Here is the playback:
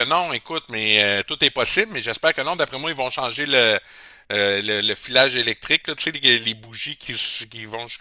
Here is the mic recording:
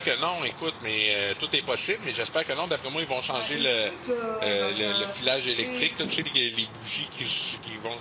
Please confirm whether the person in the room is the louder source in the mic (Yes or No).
No